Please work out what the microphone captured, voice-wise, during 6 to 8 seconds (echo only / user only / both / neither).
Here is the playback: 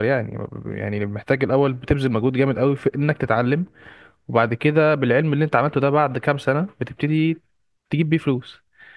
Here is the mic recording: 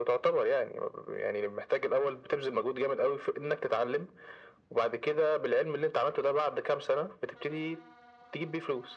echo only